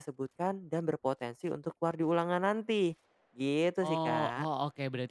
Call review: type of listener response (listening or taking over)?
taking over